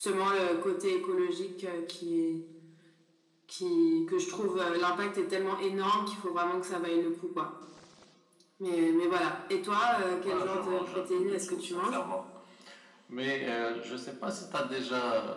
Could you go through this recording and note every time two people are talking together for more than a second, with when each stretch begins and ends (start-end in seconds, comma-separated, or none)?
10.3-12.0